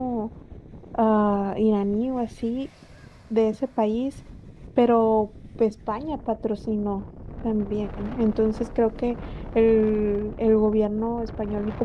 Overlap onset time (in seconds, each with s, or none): none